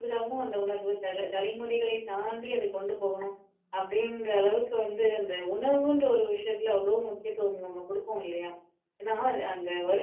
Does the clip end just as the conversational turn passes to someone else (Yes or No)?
No